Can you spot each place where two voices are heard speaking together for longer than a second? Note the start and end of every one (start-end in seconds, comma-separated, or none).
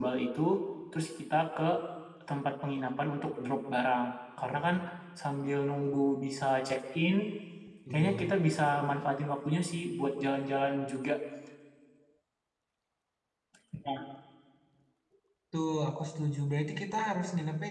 none